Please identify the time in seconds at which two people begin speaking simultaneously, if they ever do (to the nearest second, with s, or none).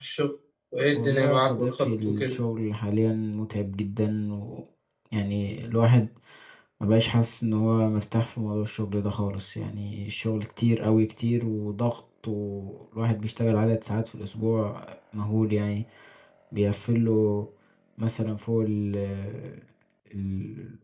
1 s